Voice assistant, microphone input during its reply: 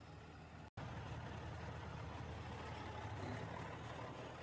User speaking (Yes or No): No